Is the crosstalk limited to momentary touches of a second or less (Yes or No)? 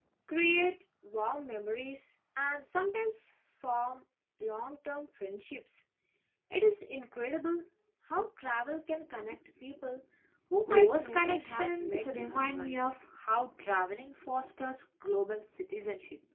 No